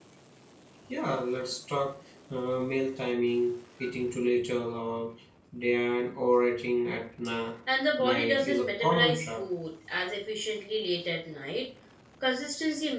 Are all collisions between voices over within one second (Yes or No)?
No